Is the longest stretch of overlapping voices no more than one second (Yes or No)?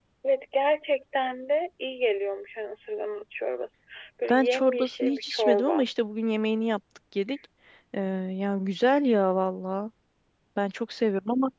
No